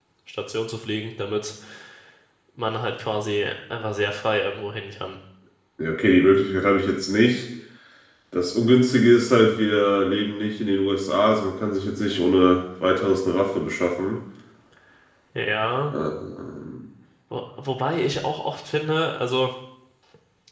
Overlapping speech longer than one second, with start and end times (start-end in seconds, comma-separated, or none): none